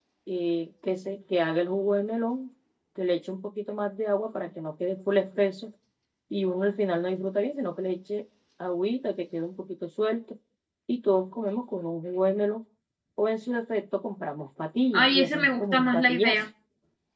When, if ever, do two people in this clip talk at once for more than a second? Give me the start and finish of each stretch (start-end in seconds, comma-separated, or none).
14.9-16.4